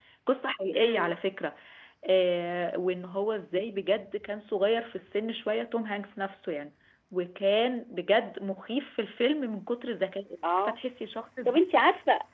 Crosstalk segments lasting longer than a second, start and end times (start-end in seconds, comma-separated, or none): none